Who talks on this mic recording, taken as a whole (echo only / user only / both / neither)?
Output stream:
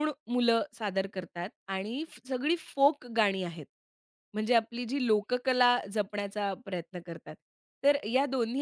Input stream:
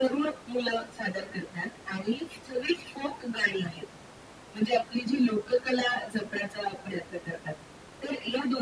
echo only